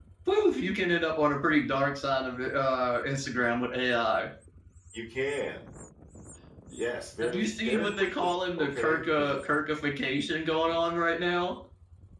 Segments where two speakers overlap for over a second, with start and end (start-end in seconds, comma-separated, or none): 7.2-9.4